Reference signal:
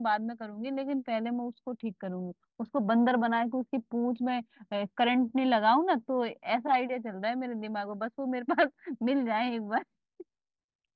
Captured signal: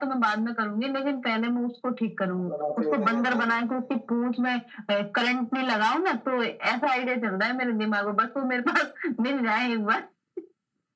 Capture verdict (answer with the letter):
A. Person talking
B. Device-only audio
A